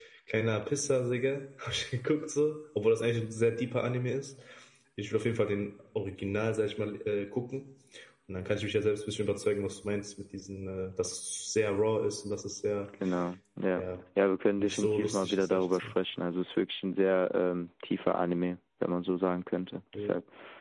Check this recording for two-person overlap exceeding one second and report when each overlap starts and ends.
14.6-15.9

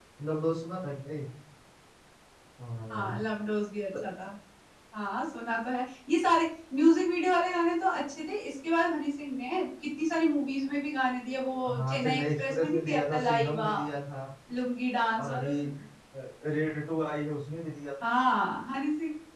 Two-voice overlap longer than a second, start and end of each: 11.8-13.7

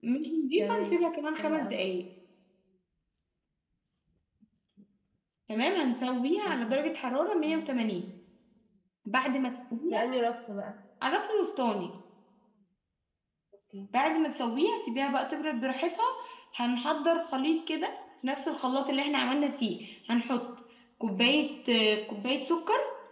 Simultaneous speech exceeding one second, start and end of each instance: none

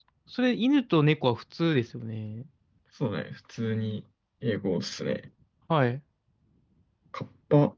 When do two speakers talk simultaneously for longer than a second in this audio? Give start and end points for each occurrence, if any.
none

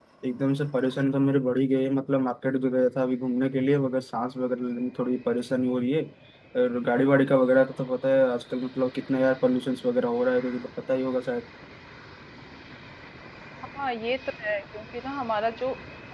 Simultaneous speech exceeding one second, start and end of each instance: none

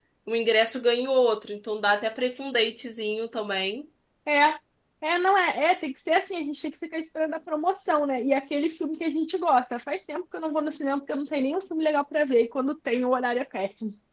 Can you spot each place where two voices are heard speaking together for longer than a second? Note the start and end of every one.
none

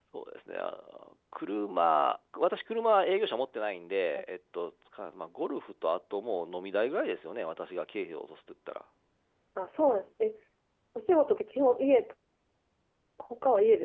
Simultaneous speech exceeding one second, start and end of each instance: none

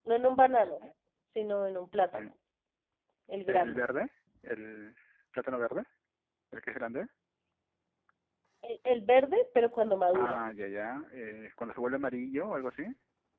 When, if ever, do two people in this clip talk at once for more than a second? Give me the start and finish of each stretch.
none

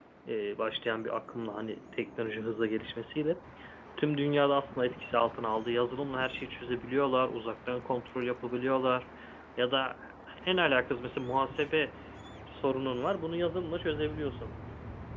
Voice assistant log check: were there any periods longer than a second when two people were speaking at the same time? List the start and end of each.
none

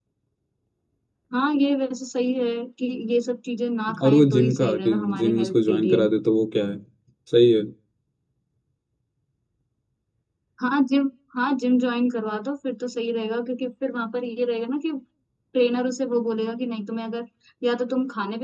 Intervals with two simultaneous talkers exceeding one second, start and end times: 4.0-6.0

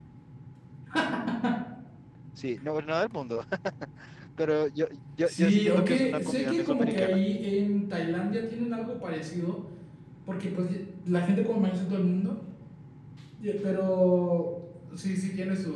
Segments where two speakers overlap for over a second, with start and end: 5.3-7.2

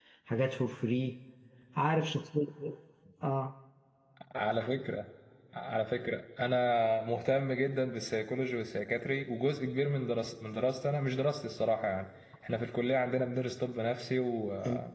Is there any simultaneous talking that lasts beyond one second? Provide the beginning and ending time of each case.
none

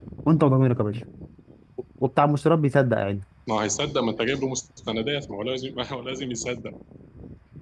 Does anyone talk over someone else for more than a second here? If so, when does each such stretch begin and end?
none

